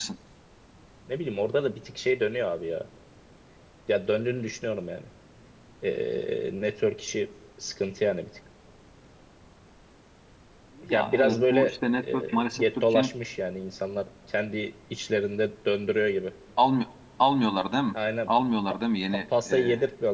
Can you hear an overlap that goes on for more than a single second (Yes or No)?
Yes